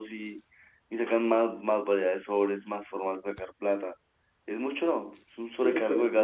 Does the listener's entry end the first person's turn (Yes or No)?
Yes